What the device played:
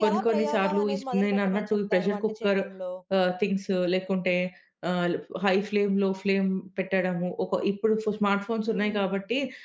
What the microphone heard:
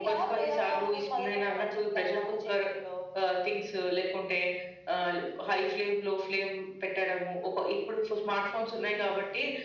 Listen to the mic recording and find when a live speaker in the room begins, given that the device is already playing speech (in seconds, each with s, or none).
none